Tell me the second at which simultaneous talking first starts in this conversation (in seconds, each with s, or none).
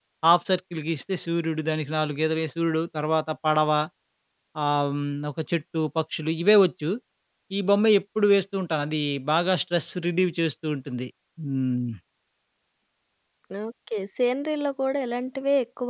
none